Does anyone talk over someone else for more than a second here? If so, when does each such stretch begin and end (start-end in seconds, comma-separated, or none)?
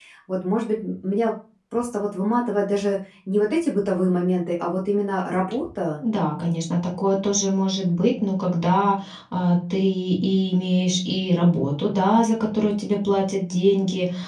none